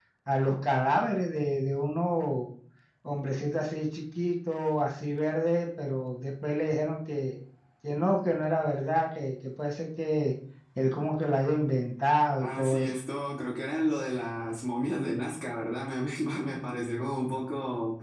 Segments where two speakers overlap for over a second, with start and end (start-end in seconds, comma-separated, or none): none